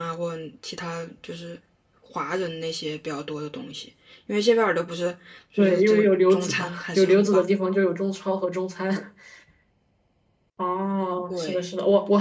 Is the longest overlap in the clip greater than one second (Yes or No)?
Yes